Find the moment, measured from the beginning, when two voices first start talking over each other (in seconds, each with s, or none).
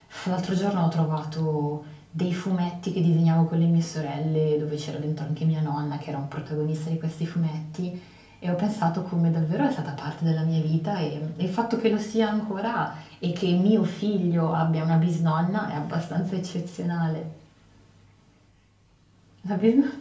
none